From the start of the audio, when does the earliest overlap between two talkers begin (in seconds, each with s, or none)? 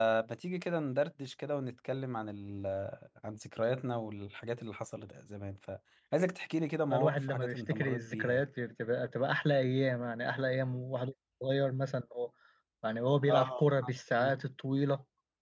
6.9 s